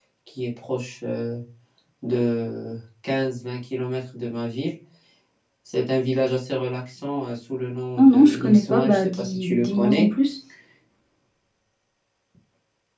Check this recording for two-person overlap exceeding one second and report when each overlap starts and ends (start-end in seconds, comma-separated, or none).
8.0-10.1